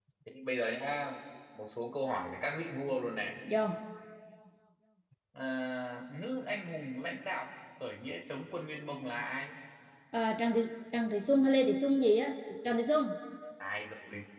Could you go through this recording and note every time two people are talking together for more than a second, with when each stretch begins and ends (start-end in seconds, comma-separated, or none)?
none